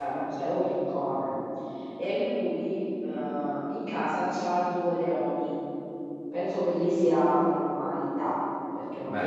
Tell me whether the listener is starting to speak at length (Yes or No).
No